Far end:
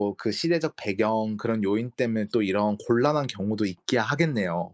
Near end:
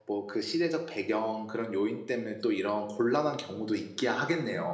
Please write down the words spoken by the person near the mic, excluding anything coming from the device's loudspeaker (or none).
none